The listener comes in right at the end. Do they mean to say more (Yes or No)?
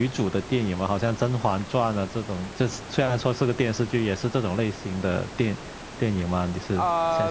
Yes